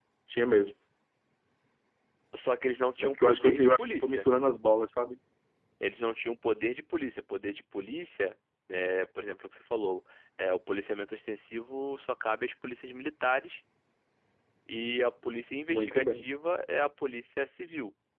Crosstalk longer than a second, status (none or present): present